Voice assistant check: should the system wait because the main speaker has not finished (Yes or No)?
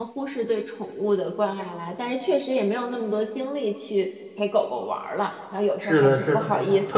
No